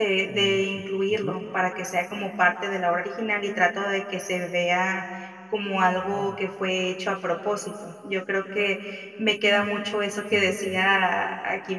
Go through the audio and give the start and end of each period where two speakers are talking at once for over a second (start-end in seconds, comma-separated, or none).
none